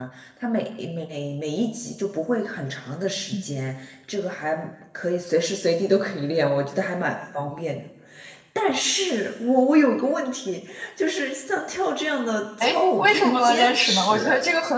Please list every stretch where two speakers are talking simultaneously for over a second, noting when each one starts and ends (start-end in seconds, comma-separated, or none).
12.6-14.2